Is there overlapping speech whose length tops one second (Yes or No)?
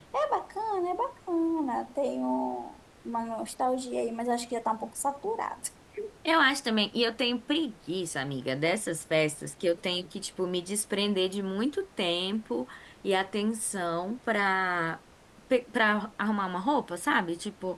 No